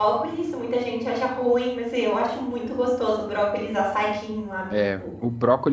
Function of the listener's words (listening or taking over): taking over